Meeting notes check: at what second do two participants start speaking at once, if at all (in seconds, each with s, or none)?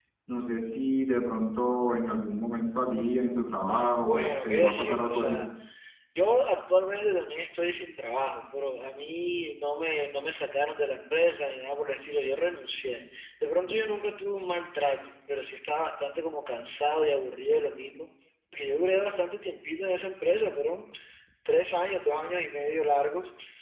4.0 s